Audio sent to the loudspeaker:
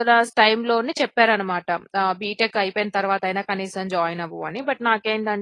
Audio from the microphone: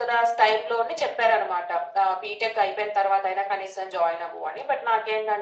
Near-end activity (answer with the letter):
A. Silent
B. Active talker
A